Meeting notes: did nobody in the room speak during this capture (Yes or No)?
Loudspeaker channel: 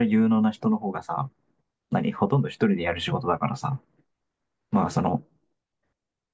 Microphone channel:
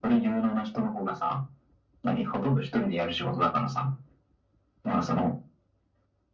Yes